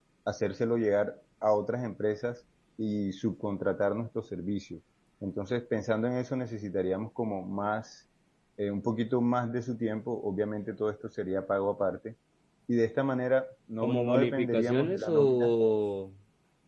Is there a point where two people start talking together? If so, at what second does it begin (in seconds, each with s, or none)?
13.8 s